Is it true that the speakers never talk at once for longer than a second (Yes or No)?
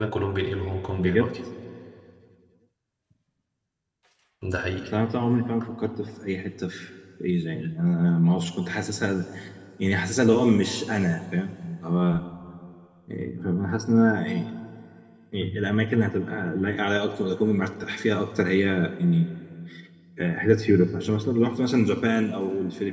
Yes